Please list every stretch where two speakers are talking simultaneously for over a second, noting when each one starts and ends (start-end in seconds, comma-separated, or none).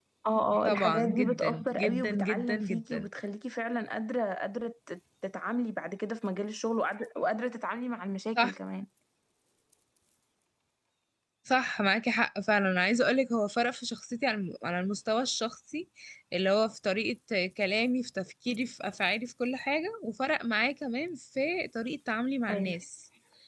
0.6-3.1